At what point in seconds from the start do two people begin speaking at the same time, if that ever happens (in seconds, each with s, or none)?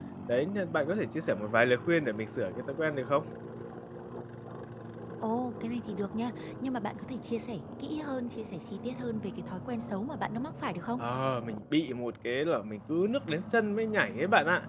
none